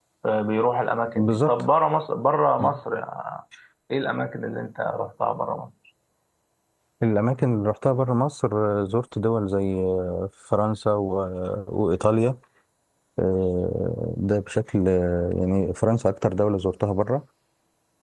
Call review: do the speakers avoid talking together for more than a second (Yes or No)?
Yes